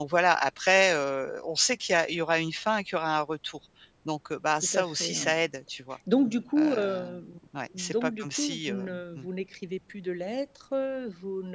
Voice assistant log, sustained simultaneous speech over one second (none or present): present